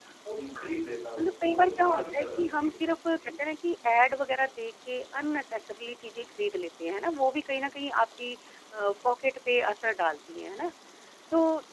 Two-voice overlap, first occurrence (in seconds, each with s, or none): 1.2 s